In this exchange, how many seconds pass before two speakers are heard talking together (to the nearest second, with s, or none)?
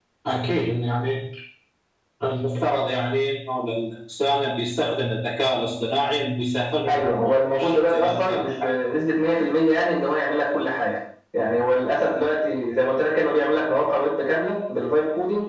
7 s